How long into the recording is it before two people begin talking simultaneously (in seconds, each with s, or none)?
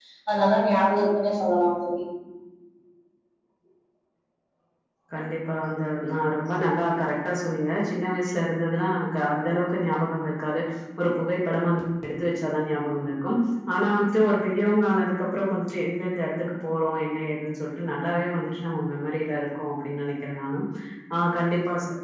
none